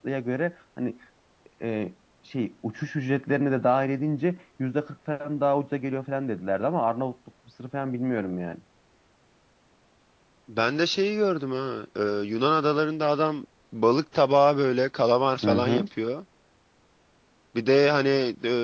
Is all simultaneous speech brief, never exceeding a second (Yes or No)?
Yes